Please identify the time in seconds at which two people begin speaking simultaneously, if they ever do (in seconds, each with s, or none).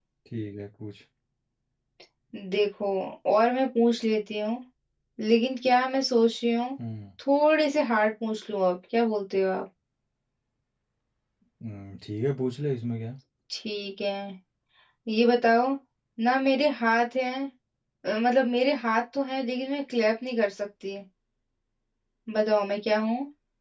none